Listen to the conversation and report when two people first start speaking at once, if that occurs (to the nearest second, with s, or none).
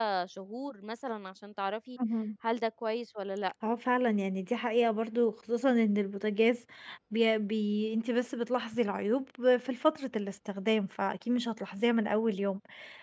none